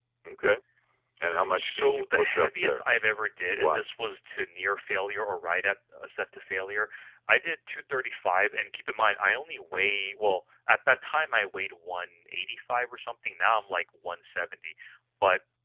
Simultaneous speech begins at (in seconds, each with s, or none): 1.6 s